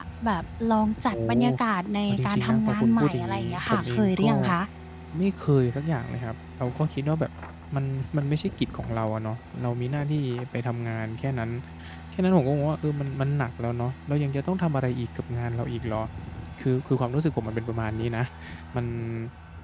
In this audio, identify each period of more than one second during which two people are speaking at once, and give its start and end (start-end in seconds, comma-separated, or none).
2.1-4.3